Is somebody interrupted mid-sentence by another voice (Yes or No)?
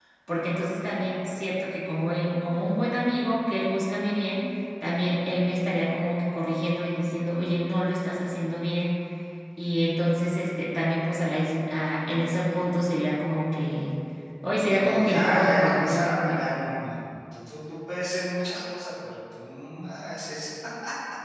Yes